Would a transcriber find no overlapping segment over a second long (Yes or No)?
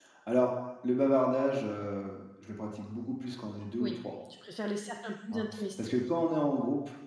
Yes